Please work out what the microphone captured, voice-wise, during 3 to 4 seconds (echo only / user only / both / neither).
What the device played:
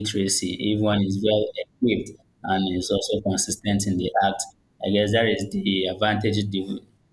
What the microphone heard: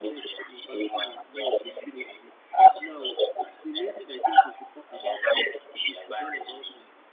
both